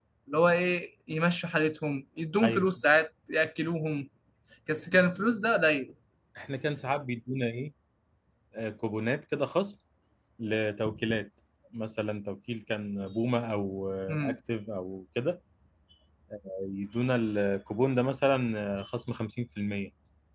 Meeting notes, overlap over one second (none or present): none